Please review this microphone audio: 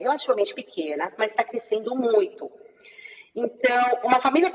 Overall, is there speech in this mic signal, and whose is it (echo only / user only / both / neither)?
echo only